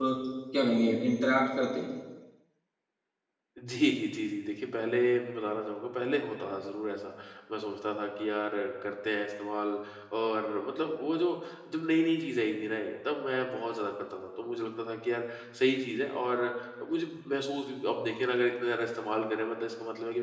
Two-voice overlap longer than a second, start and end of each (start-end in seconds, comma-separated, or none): none